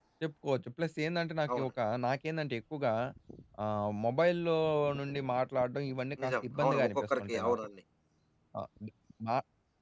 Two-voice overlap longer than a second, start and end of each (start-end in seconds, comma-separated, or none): 6.2-7.6